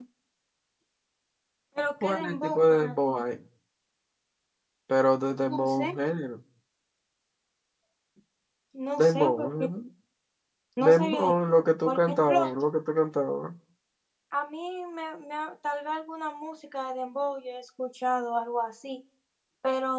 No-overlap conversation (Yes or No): No